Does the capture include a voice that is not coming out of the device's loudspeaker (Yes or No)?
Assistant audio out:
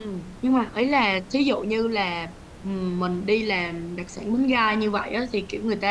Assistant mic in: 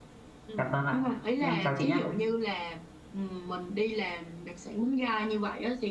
Yes